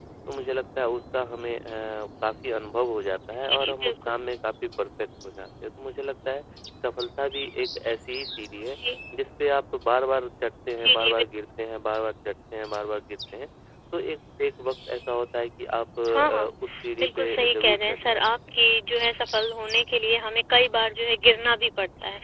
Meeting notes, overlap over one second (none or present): present